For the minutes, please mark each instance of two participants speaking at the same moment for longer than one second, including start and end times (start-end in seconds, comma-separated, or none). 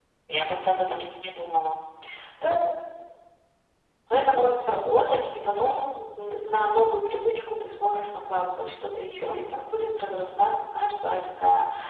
none